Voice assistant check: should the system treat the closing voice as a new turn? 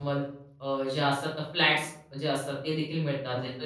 No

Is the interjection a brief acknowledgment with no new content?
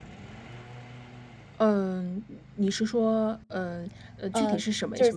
No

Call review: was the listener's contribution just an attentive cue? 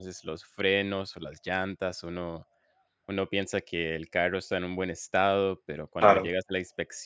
Yes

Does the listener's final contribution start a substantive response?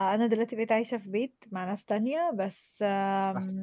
No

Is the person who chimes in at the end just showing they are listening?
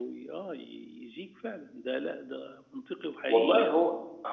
No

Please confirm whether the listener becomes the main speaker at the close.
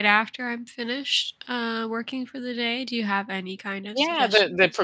Yes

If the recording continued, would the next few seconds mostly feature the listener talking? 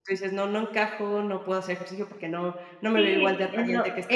Yes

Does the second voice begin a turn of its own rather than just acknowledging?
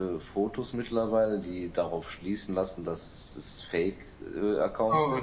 Yes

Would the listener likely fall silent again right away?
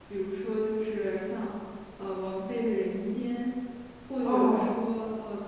Yes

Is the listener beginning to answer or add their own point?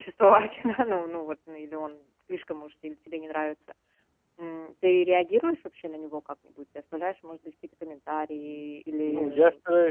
Yes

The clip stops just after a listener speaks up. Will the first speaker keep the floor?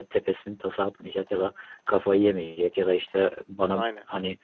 Yes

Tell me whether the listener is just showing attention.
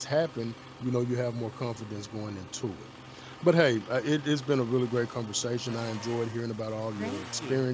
Yes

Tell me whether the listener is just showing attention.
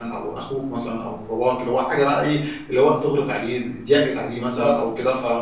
Yes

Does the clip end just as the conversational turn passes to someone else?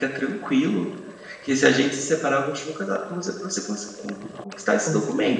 No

